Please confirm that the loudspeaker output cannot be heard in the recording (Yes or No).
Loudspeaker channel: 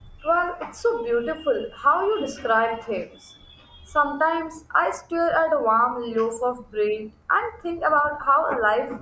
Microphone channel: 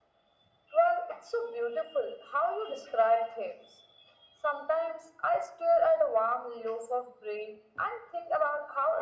No